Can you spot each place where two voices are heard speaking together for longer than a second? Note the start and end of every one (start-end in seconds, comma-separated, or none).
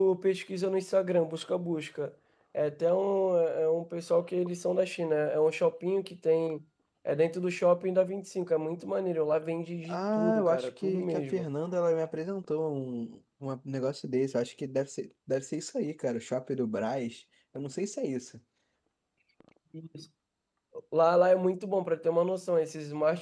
9.9-11.4